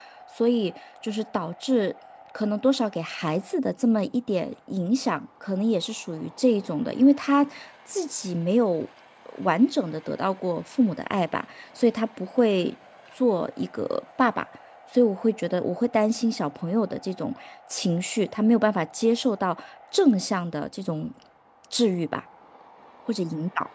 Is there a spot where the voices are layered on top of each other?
No

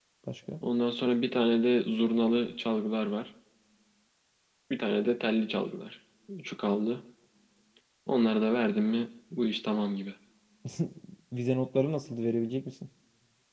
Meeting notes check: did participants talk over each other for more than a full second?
No

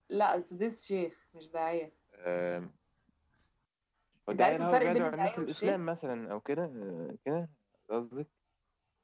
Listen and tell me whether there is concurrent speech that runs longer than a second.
Yes, from 4.3 s

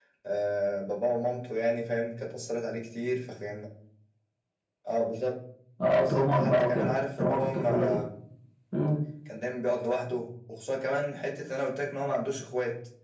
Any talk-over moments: Yes, from 5.9 s

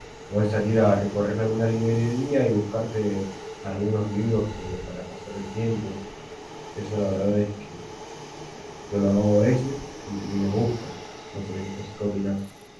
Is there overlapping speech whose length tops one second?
No

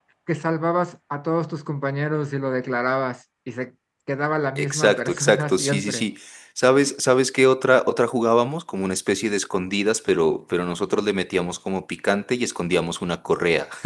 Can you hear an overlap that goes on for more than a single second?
Yes, from 4.6 s

